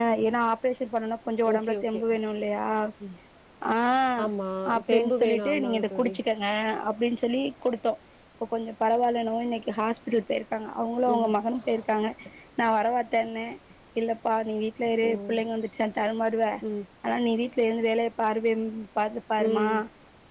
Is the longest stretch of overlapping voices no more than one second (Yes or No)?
No